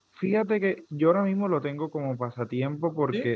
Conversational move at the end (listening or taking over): listening